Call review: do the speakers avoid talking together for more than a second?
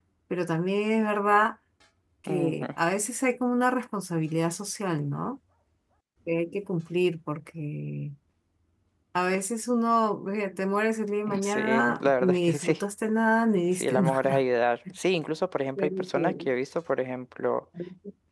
No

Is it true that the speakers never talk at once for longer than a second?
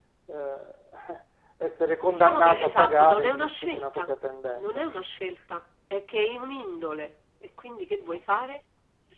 No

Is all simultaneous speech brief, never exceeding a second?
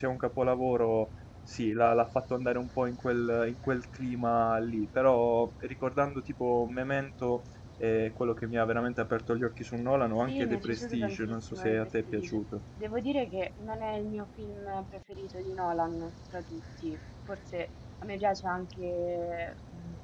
No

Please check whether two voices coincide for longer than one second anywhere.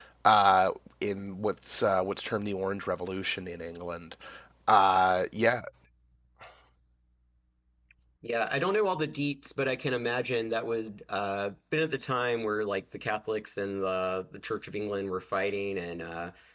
No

